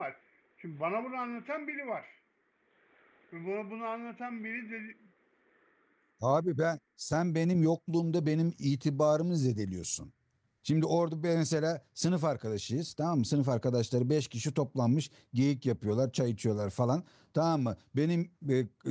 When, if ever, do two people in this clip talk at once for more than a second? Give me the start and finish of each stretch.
none

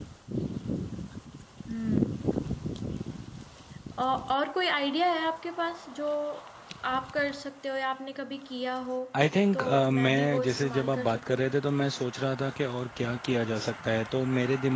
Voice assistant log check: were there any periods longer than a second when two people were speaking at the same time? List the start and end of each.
9.5-11.4

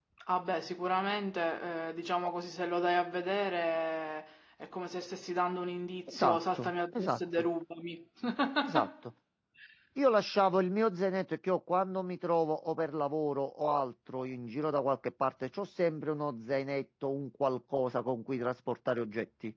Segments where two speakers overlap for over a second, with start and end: 6.1-7.5

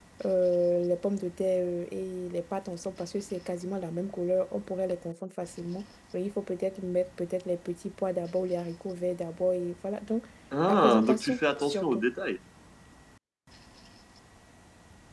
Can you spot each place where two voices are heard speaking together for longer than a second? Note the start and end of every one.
10.7-12.0

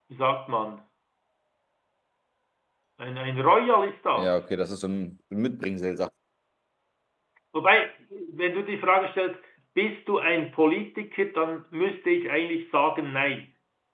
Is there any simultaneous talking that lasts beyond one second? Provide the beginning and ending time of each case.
none

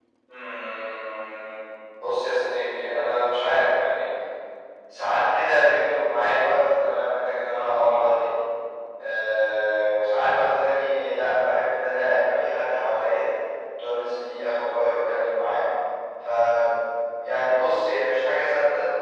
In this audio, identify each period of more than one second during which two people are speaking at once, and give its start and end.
none

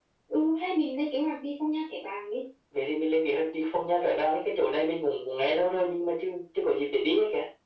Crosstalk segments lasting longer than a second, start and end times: none

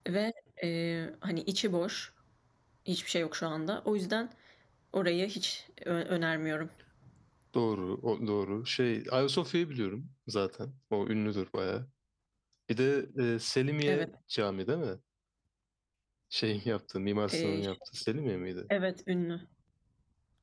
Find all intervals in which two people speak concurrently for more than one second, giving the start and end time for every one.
none

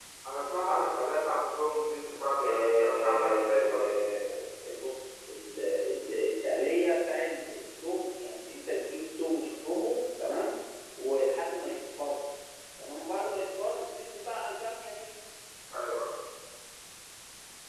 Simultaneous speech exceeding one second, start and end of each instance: 2.4-3.9

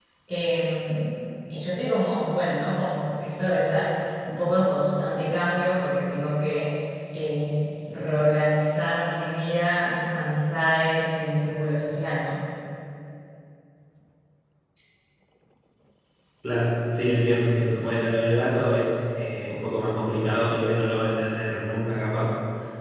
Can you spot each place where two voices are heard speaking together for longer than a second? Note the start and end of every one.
none

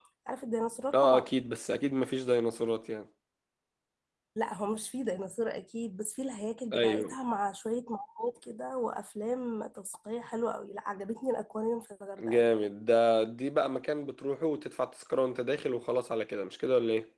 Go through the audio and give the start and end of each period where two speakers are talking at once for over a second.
none

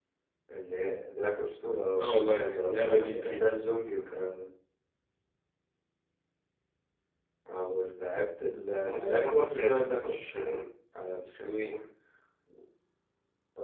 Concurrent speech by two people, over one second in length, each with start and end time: 2.0-3.5, 8.8-10.6

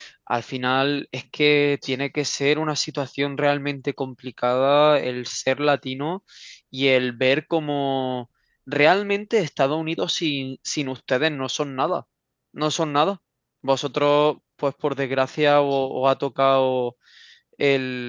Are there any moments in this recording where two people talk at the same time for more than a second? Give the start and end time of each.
none

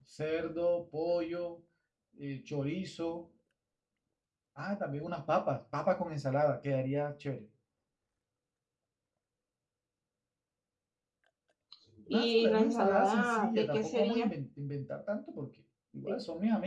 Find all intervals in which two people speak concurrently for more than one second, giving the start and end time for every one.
12.1-14.3

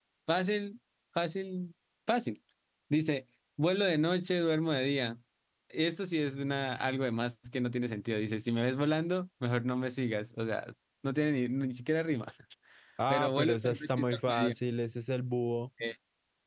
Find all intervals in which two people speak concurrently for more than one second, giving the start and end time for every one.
13.1-14.5

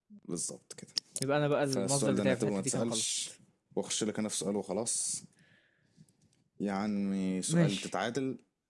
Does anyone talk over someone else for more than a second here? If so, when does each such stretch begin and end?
1.6-3.0

